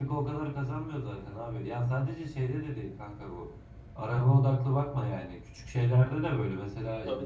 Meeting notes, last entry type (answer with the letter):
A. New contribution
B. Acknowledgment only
B